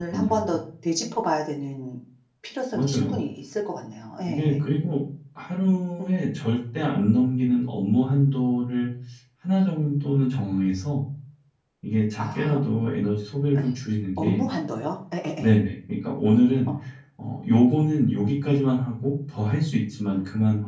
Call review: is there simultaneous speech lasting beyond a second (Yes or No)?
No